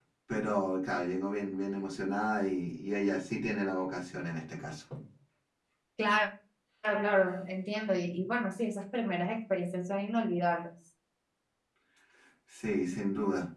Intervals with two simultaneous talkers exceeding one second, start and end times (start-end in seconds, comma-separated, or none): none